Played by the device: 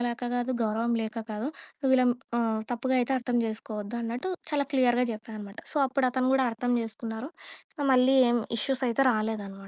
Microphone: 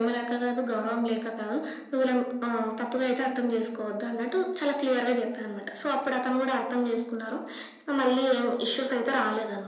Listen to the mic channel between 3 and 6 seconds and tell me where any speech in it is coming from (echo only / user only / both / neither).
echo only